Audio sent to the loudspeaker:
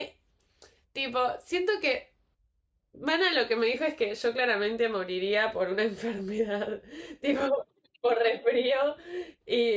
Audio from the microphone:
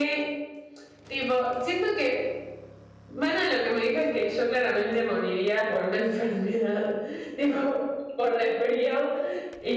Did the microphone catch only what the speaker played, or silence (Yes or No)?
Yes